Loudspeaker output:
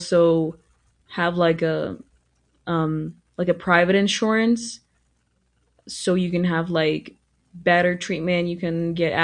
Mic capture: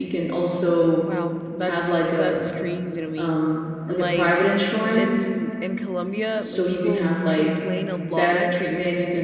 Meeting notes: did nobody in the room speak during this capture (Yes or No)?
No